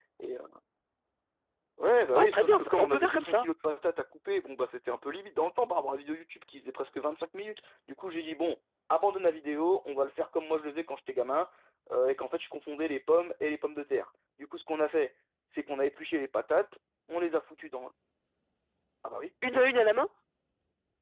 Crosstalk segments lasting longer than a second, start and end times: 2.1-3.5

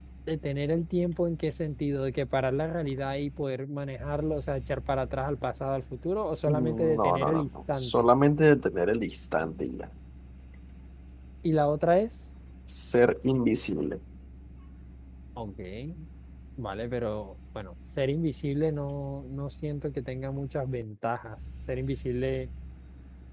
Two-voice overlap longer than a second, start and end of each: 6.5-8.1

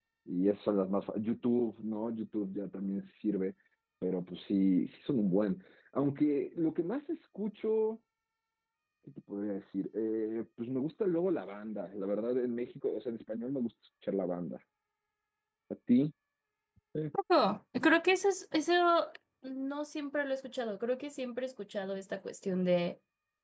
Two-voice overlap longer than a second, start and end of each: none

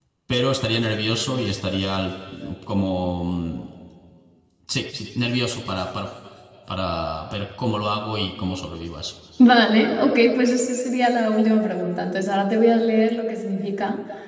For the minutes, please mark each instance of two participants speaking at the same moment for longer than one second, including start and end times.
none

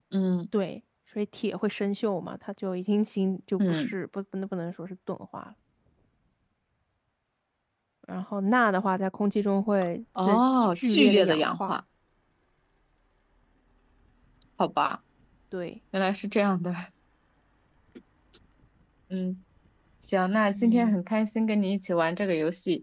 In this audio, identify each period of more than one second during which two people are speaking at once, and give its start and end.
10.2-11.7

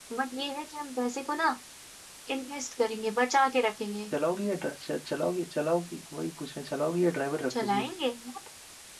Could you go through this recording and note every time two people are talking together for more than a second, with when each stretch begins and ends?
none

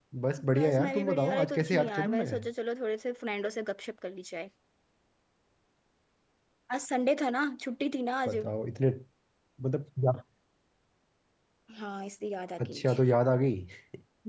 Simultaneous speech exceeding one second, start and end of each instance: 0.6-2.2

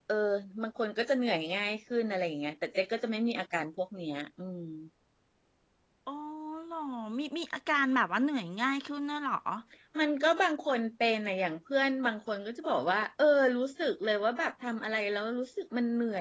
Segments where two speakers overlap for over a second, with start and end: none

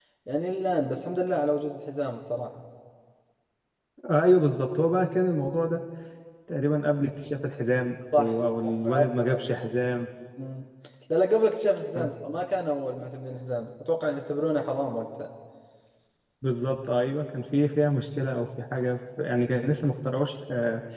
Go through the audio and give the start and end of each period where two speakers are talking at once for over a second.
8.2-9.4

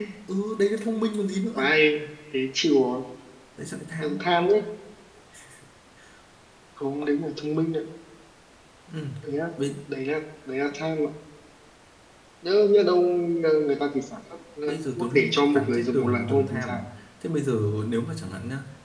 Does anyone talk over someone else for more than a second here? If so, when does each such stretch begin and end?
14.7-16.8

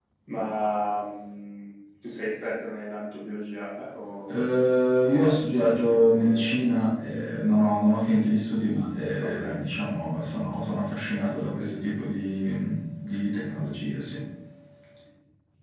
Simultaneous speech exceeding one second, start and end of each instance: 5.1-6.6

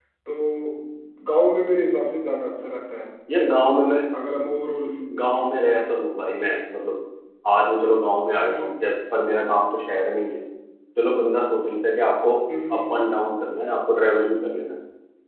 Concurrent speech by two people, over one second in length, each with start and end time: none

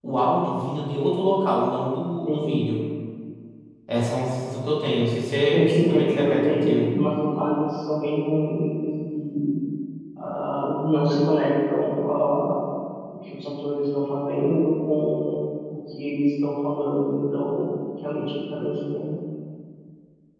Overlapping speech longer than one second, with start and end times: 5.5-6.9

